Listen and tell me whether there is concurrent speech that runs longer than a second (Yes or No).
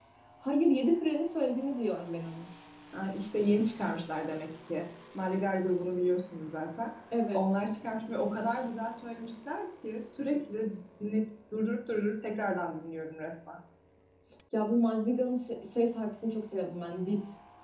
No